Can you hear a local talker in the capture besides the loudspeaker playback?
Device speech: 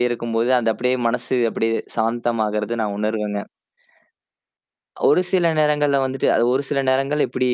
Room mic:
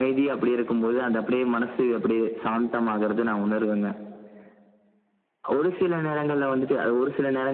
No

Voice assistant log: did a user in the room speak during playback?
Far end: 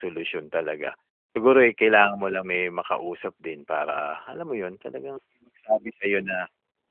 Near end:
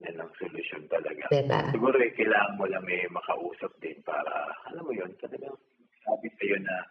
Yes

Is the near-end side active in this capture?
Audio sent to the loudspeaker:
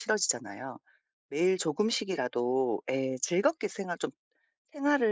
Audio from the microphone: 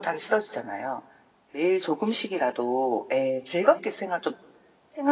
No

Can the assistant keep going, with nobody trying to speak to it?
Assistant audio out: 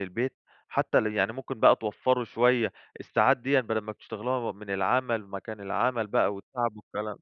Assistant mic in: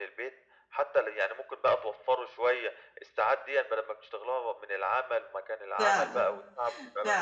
No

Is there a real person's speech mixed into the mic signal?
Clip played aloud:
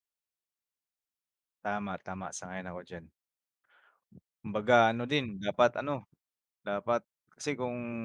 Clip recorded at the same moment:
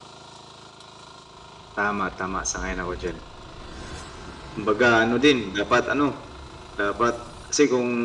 No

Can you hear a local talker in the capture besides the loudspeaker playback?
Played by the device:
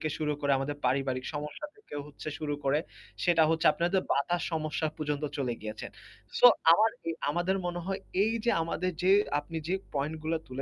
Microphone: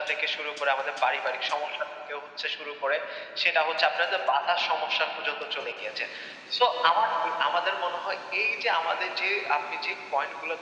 No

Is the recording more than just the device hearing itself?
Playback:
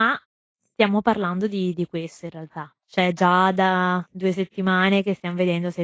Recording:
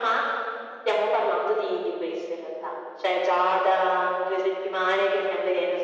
No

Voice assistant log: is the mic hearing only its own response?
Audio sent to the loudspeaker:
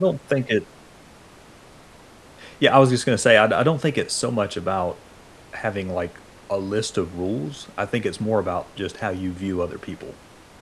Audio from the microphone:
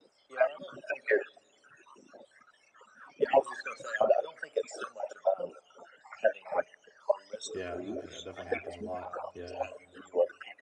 No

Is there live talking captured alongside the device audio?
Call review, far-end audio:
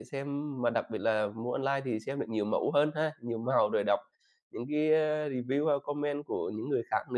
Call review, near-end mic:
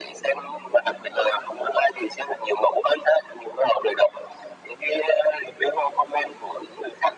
No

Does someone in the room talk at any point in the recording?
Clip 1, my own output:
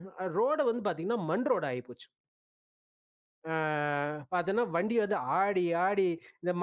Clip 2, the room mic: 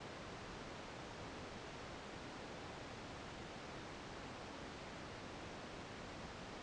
No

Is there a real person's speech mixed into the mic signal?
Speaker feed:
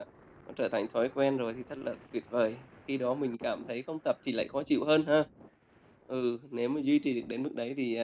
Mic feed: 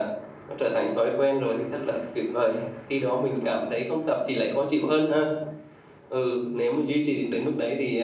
No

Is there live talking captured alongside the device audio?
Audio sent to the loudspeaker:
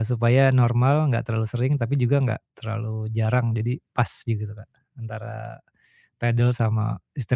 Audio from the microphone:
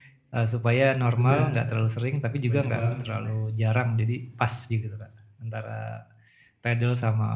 Yes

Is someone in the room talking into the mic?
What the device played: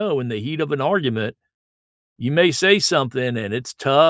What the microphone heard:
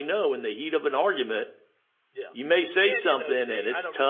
Yes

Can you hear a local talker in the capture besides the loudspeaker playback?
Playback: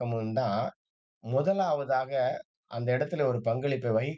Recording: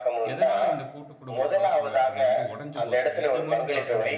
Yes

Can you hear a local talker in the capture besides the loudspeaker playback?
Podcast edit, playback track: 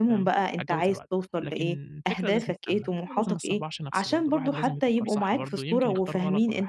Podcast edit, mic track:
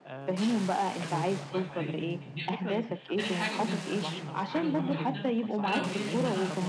Yes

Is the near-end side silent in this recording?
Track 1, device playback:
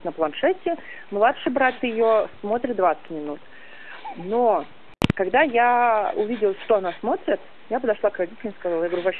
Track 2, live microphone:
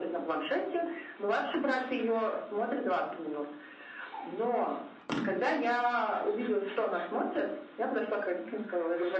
Yes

